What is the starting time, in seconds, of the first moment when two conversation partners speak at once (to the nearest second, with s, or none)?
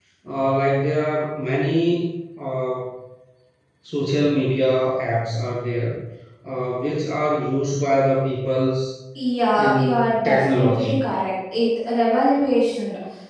10 s